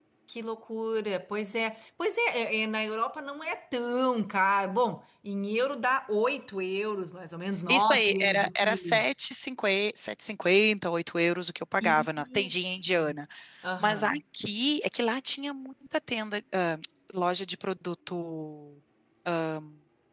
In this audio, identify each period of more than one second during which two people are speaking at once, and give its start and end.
7.7-9.0, 11.8-13.1

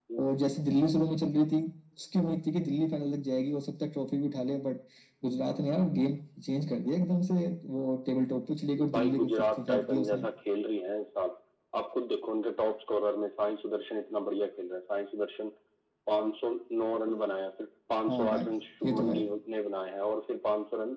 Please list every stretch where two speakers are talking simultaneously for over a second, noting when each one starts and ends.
8.9-10.2

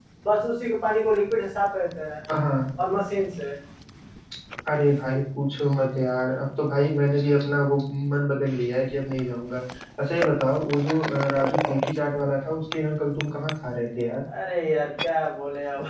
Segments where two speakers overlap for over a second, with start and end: none

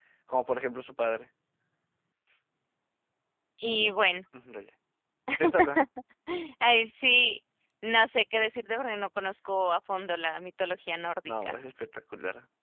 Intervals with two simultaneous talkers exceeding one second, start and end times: none

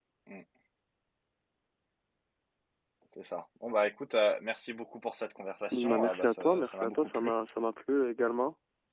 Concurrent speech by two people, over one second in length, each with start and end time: 5.7-7.3

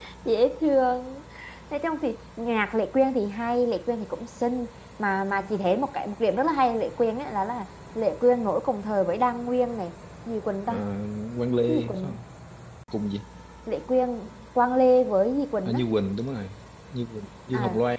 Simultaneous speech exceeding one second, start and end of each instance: none

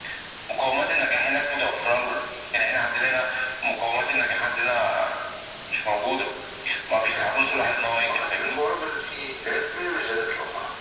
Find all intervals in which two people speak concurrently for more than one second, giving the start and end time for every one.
6.9-8.6

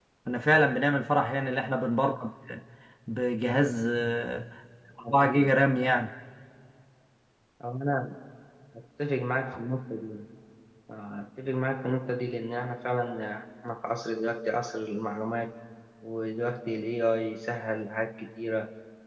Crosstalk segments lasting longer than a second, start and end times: none

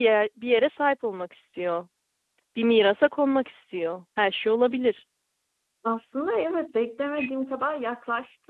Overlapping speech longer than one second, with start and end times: none

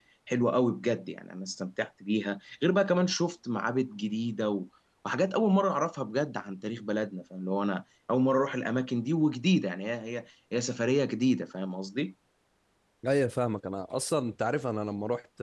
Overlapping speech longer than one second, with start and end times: none

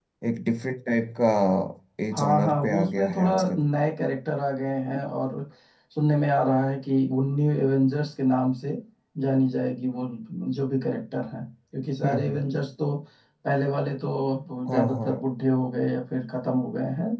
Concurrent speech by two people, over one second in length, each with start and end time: 2.1-3.6

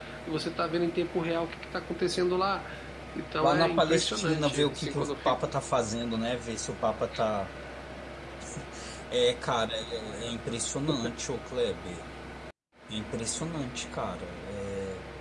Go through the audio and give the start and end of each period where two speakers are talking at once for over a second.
3.4-5.1

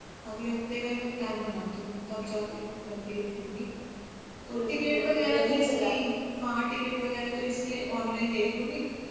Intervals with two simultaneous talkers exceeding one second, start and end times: 4.5-5.9

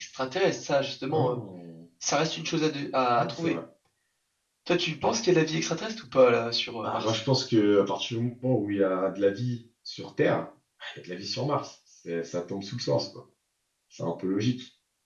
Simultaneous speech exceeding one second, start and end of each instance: none

